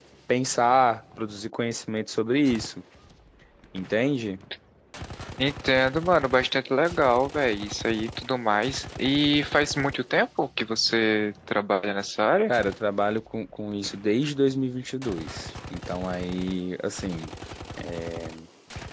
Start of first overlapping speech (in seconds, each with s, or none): none